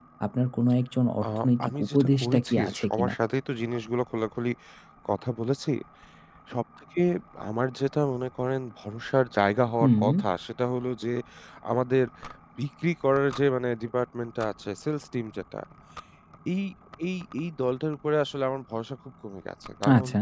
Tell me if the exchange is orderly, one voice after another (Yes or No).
No